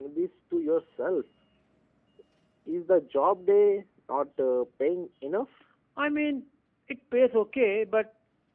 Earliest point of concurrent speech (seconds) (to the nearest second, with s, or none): none